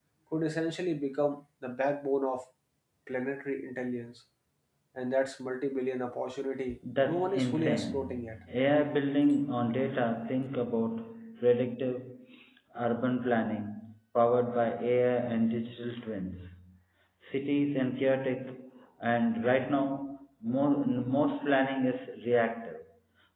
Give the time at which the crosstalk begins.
6.8 s

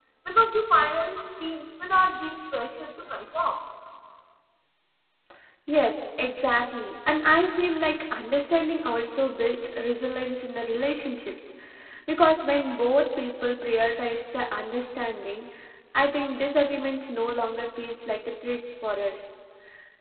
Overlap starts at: none

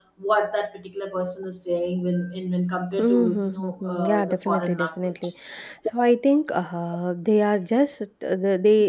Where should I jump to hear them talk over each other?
3.0 s

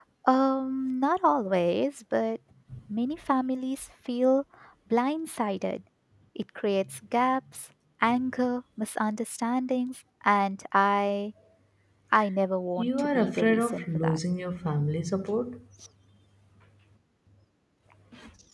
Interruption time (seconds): 12.8 s

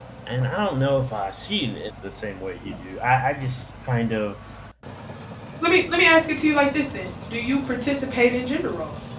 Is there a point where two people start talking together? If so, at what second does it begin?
none

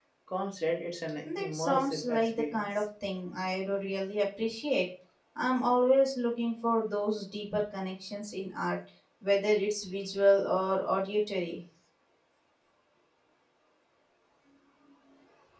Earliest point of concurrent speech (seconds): 1.2 s

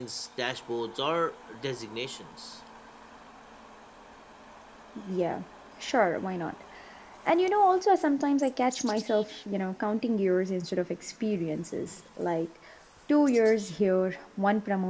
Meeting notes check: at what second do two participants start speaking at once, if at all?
none

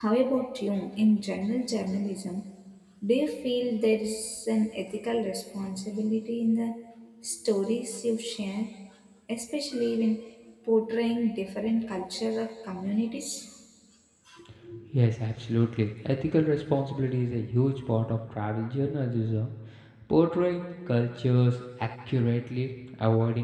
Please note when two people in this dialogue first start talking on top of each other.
none

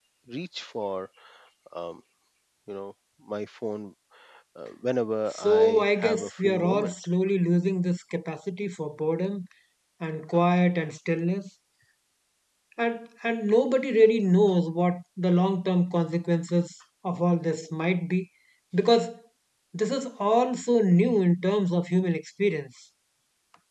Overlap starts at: 5.3 s

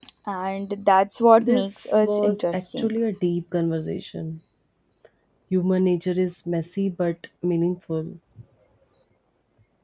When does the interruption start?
1.4 s

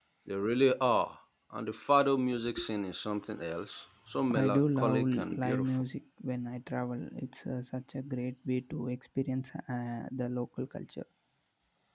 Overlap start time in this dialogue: 4.3 s

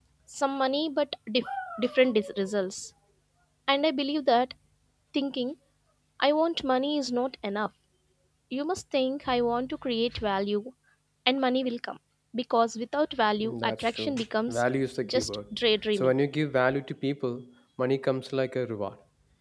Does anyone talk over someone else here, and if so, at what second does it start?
13.4 s

